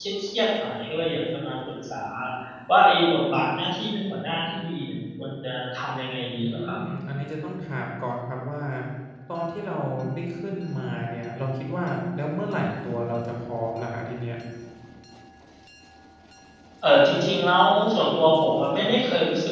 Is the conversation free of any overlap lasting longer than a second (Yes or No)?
Yes